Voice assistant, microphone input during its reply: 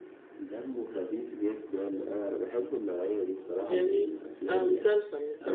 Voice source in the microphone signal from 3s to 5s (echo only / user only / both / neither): both